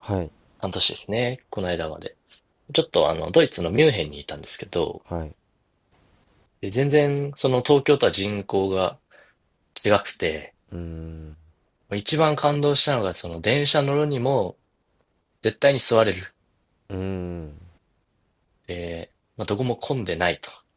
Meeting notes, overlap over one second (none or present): none